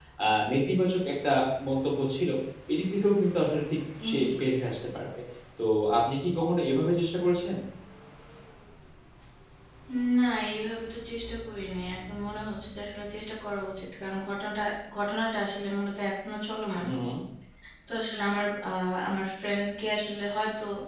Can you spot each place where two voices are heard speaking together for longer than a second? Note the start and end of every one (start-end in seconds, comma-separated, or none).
none